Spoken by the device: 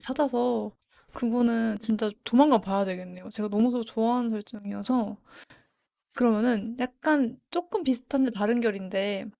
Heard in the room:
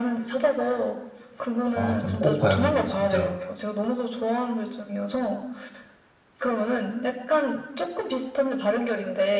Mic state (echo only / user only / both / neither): both